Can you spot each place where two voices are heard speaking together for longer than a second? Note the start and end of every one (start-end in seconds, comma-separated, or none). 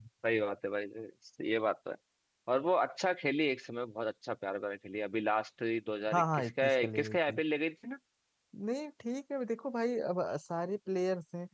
6.1-7.4